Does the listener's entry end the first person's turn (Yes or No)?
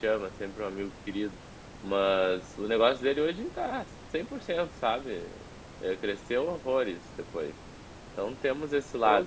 Yes